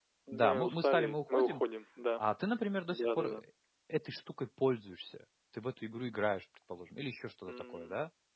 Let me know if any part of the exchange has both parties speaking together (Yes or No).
Yes